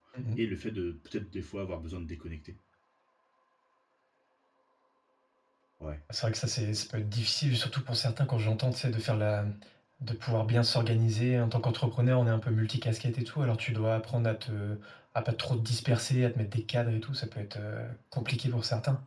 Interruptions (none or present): none